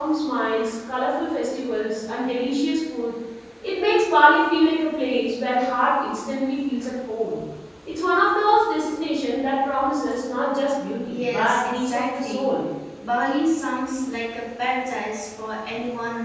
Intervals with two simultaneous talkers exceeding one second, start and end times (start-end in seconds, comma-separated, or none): 11.1-12.5